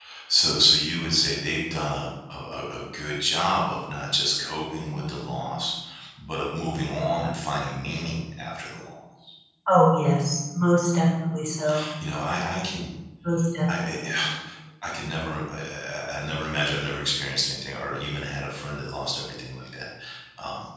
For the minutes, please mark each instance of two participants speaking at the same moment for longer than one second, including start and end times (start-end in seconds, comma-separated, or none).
none